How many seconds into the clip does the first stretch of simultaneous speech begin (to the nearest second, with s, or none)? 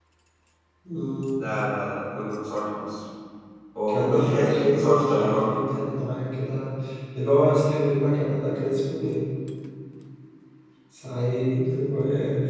4 s